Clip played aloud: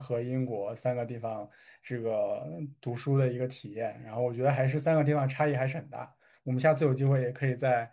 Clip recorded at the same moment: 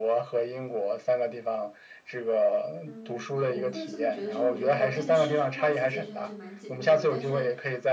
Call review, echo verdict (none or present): present